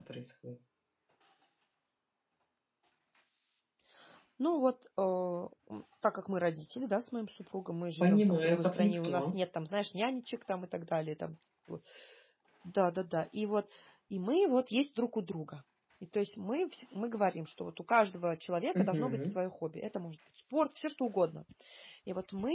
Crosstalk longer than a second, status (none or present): present